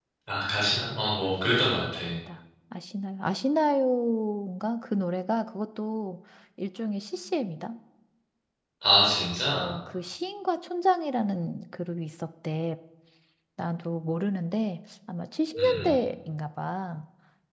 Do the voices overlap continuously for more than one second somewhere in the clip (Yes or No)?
No